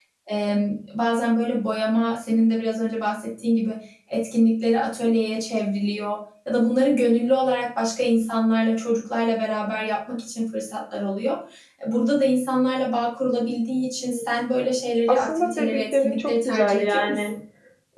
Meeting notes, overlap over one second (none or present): present